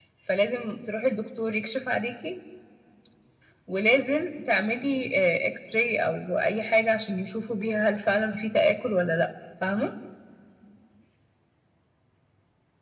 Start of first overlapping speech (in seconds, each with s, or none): none